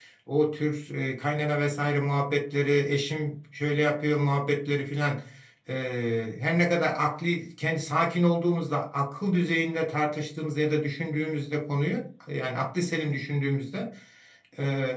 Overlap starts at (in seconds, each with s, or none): none